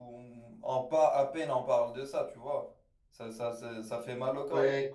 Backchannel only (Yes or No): Yes